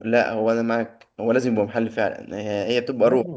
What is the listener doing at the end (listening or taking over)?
listening